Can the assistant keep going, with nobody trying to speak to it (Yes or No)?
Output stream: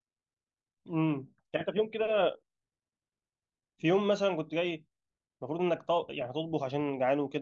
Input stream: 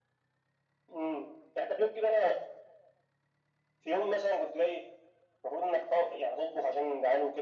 Yes